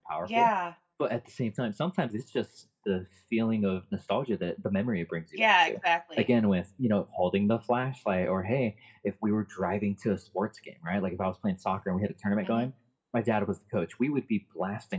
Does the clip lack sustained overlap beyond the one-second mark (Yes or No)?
Yes